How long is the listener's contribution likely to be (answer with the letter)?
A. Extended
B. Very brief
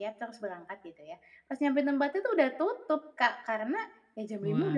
B